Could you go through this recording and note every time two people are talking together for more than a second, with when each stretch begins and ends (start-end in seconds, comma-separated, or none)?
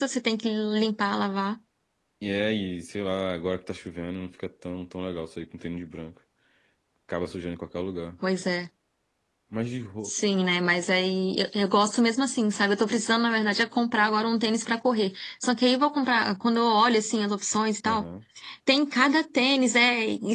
none